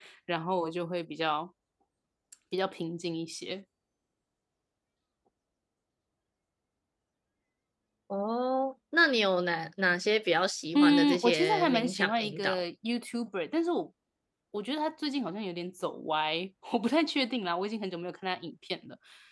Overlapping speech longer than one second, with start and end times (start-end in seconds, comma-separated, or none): 10.8-12.6